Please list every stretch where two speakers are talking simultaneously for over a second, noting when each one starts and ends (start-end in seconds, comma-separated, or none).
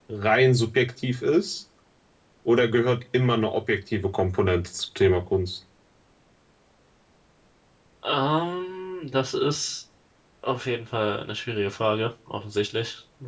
none